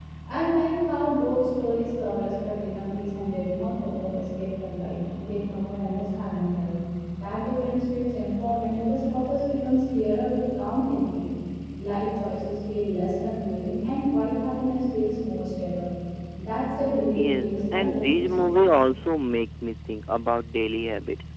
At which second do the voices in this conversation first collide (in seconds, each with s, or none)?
17.1 s